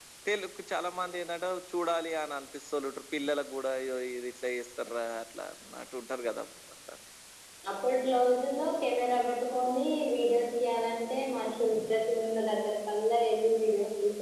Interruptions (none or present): none